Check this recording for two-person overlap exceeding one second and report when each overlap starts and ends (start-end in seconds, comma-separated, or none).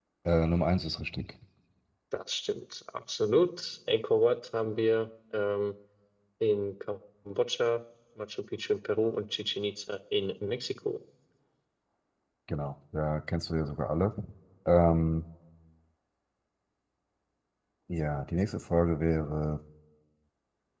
none